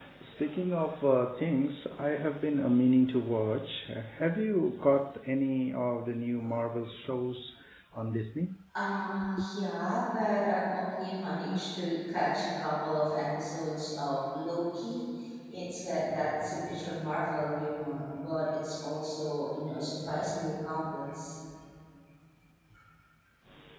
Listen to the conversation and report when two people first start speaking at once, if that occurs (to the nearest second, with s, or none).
none